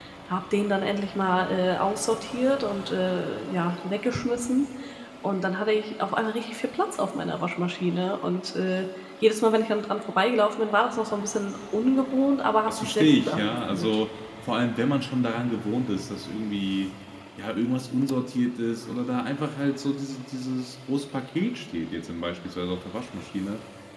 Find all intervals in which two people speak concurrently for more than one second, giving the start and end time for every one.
12.7-14.0

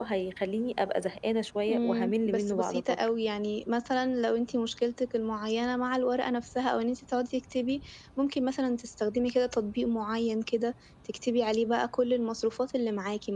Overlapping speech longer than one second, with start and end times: 1.7-3.0

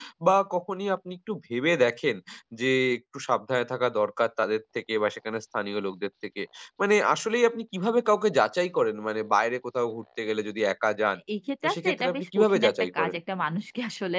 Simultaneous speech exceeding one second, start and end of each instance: 11.6-13.2

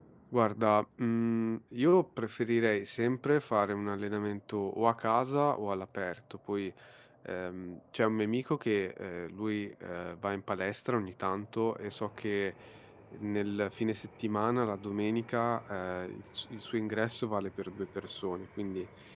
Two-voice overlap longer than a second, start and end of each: none

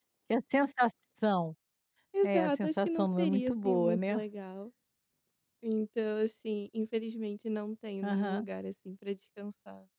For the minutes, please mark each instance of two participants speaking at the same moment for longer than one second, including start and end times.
2.2-4.2

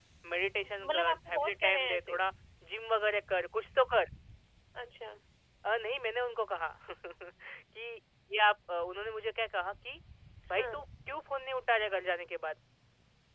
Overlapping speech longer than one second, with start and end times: 0.6-2.2

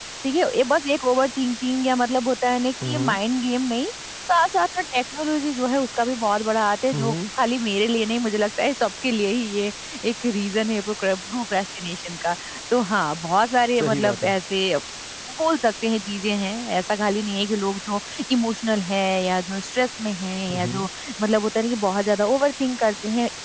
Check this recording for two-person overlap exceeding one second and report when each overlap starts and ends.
none

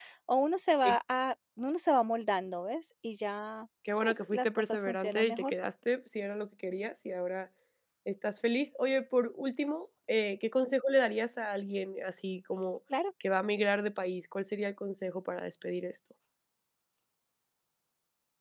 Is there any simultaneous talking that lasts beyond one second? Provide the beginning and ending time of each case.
4.0-5.5

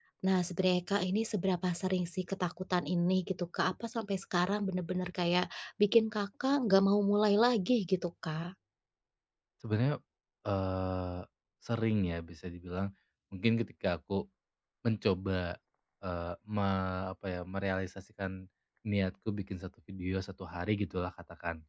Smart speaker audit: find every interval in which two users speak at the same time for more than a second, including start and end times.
none

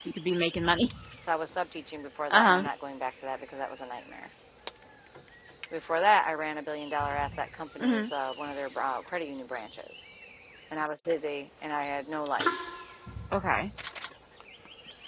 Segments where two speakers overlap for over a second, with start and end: none

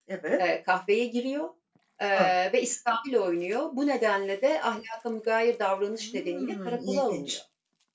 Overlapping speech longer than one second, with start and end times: 6.0-7.4

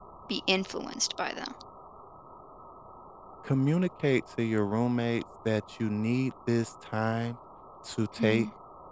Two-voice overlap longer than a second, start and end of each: none

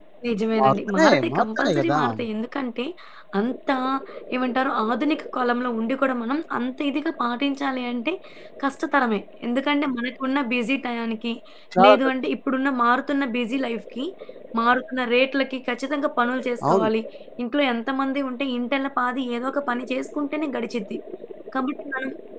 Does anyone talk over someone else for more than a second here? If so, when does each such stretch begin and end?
0.6-2.0

